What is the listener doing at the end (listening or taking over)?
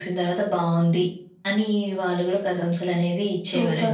taking over